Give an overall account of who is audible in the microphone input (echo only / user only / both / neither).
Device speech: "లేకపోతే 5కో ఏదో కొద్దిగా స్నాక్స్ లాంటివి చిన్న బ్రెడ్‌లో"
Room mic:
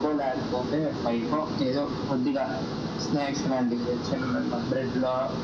both